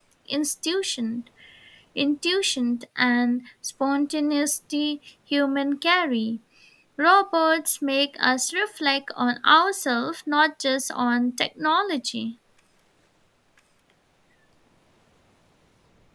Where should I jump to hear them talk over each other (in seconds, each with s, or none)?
none